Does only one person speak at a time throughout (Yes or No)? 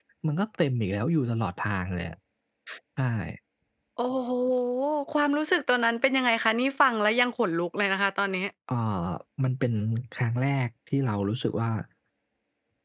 Yes